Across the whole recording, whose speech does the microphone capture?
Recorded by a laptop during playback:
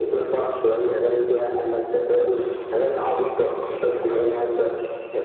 both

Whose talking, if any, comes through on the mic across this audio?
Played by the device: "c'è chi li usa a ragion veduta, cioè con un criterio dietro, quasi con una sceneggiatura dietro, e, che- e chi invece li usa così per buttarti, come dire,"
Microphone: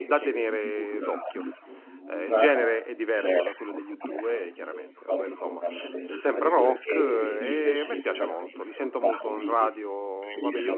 both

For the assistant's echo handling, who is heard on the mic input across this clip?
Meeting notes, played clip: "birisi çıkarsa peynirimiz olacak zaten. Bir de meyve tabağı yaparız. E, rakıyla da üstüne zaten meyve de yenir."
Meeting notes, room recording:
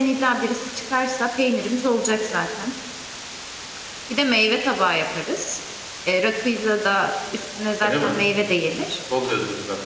both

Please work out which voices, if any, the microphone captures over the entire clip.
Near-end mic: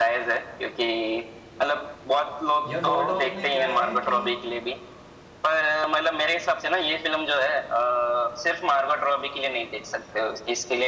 both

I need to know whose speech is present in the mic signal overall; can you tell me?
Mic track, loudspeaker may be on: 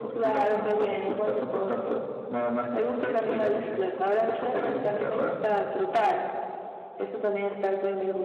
echo only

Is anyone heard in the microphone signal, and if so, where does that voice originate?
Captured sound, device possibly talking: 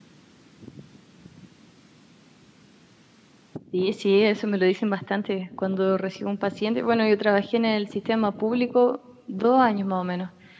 user only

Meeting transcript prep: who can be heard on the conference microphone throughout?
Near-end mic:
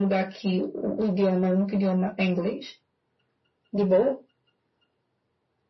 echo only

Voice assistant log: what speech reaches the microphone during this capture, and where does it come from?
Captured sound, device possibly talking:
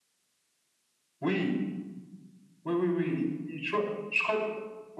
echo only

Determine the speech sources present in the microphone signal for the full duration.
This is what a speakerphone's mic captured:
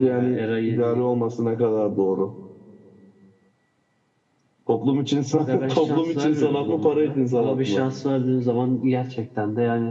echo only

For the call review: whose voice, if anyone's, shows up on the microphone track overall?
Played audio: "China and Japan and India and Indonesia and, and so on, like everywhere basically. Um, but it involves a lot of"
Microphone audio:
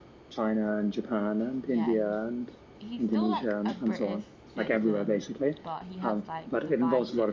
both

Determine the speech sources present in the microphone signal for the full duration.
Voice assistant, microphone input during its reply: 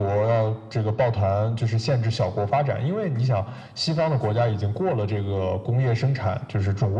echo only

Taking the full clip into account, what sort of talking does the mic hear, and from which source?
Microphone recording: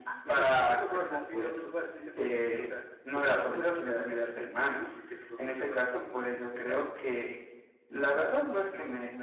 both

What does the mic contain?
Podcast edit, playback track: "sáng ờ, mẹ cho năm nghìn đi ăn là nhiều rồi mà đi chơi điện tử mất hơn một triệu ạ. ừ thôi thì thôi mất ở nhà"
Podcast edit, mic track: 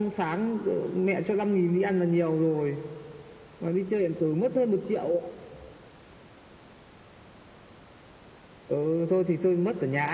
echo only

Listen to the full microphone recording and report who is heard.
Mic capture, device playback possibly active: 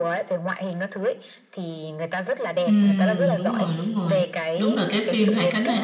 both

